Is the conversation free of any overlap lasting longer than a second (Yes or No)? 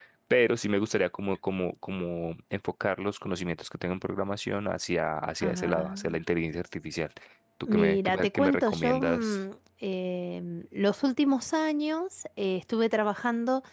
No